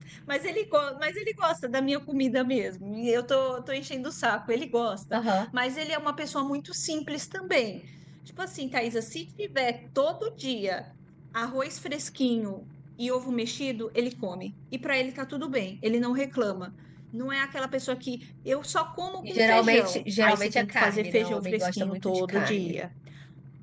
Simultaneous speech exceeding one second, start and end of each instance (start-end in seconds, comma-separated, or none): 19.2-22.8